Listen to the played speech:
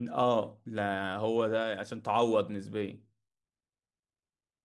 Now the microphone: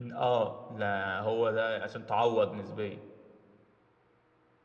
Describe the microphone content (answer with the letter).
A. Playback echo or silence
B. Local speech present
A